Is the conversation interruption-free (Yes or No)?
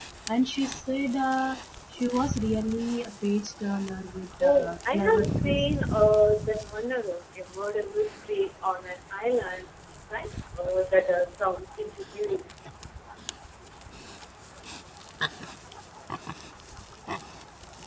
No